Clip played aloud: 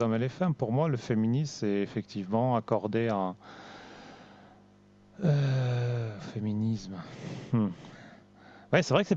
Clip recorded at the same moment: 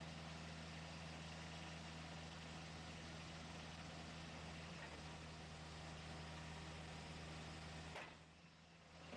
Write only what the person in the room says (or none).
none